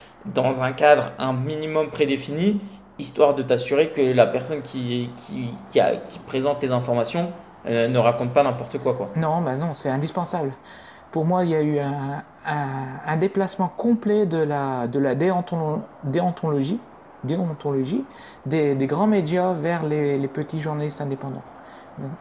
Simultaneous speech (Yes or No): No